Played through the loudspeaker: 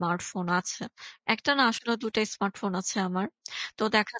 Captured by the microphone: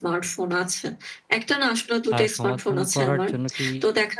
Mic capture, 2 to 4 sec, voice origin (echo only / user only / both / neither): both